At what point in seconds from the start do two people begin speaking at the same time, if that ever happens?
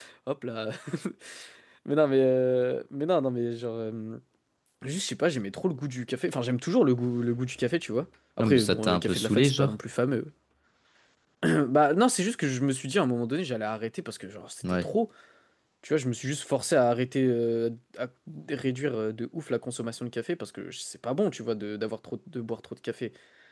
8.4 s

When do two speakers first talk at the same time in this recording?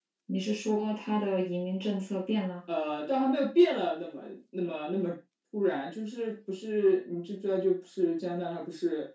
none

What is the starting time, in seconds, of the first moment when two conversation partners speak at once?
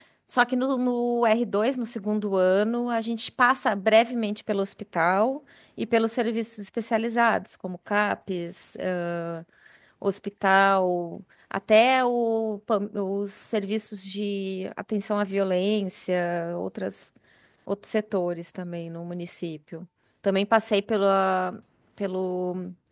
none

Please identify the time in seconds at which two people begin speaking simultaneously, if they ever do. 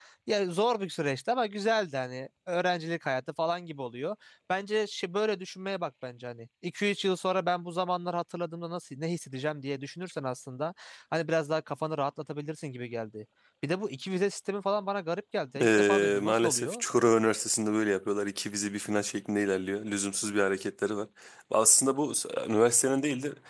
15.6 s

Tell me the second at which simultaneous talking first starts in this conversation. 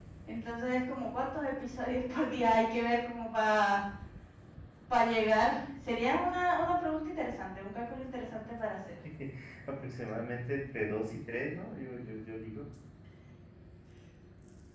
none

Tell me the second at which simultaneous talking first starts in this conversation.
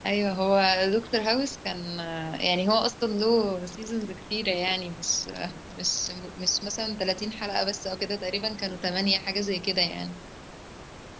none

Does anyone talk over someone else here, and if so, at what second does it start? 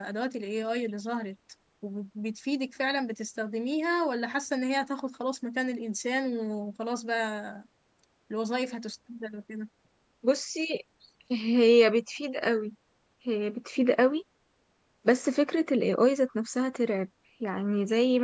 none

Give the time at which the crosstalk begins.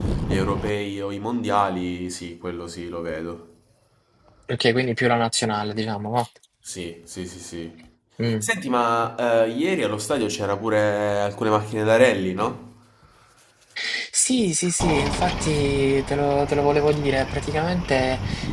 none

